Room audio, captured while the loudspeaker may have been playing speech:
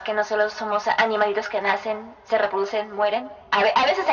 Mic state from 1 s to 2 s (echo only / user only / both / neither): echo only